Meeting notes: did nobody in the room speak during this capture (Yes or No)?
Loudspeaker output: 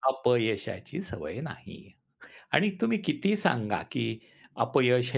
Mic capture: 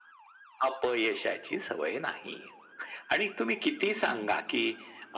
No